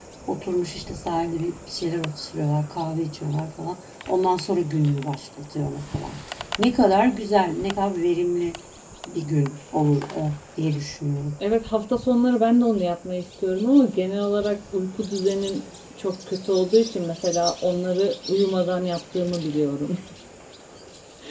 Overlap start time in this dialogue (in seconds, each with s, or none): none